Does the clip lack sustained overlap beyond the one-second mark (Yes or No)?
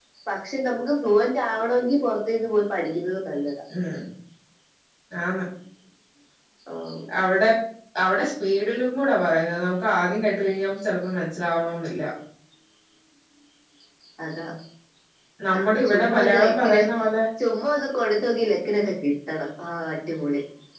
No